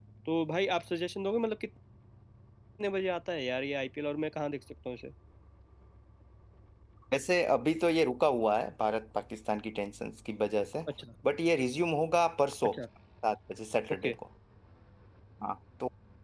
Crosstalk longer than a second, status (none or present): none